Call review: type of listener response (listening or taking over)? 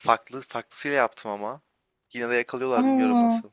listening